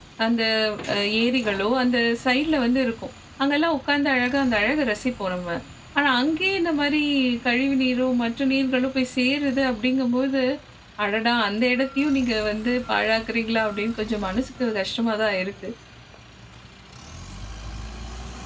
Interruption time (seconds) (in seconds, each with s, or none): none